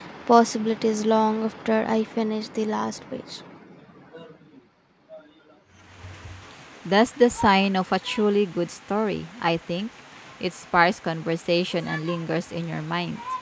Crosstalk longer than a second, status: none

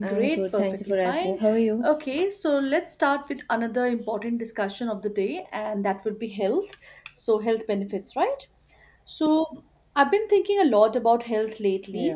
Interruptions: present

